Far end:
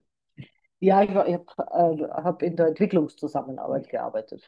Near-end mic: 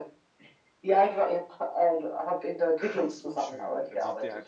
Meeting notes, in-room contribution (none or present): present